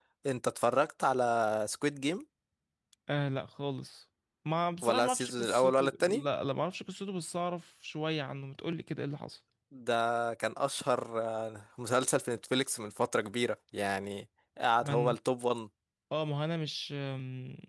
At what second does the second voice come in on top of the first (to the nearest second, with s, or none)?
5 s